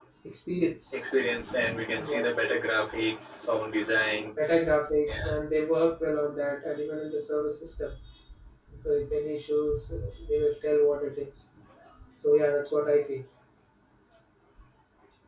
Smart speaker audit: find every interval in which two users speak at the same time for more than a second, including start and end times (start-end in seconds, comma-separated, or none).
none